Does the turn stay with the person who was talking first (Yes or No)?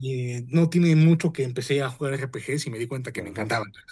No